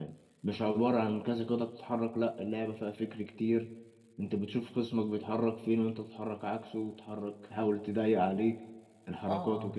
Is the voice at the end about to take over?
Yes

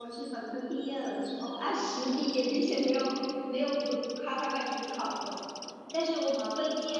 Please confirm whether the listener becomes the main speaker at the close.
No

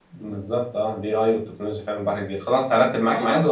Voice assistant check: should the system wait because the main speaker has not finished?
No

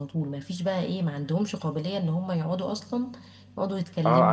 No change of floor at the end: No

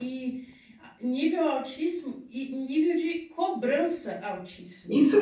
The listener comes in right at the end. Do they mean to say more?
Yes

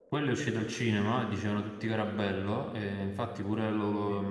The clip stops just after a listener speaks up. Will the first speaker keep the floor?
Yes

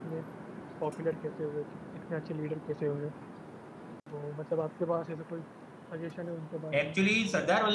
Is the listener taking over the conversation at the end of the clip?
Yes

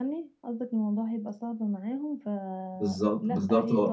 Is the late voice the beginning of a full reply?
Yes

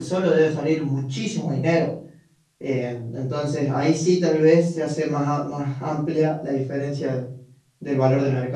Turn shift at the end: Yes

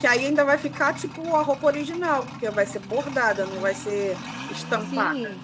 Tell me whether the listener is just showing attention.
No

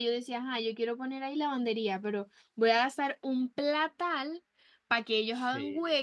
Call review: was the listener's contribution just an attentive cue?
Yes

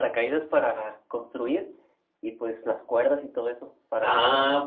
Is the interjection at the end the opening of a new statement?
Yes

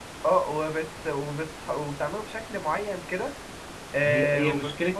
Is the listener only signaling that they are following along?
No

